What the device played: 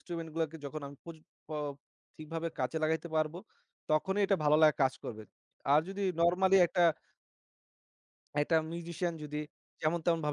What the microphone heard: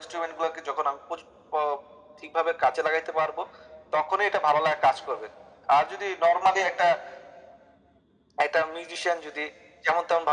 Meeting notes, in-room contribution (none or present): none